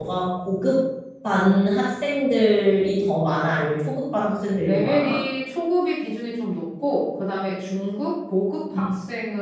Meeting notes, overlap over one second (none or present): none